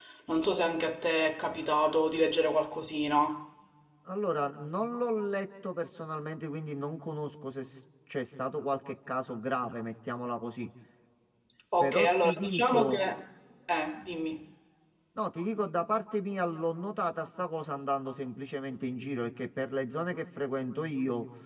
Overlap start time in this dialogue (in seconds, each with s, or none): 11.8 s